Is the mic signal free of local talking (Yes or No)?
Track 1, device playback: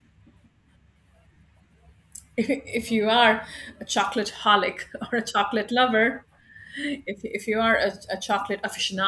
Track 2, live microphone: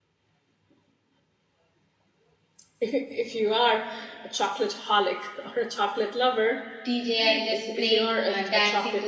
No